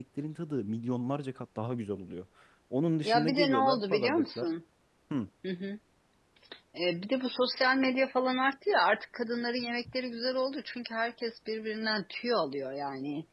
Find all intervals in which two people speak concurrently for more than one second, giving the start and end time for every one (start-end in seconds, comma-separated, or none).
3.0-4.4